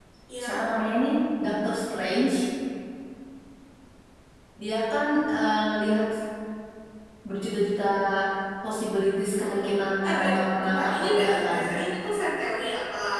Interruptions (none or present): present